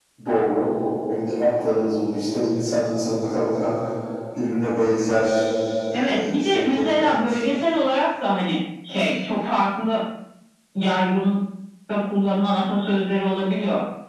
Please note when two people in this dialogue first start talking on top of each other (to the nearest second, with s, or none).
6 s